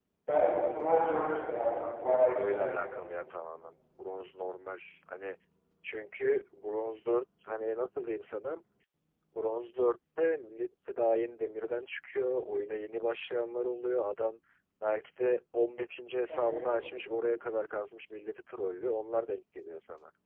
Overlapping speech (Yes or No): Yes